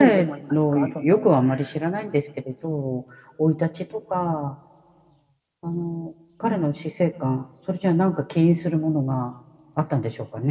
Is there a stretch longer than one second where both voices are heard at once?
Yes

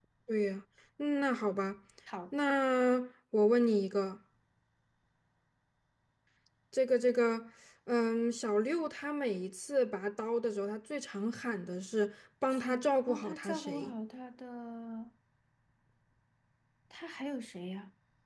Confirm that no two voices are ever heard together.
No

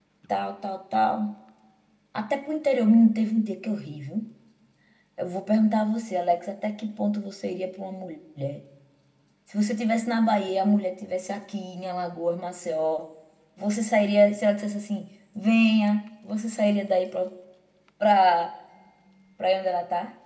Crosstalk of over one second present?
No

